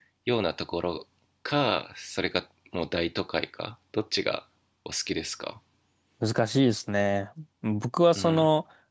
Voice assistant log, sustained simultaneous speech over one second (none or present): none